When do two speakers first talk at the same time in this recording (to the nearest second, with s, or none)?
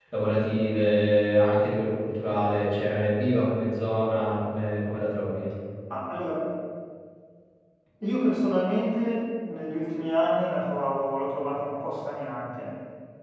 none